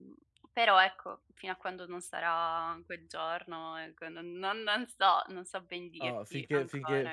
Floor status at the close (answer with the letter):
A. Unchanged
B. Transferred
B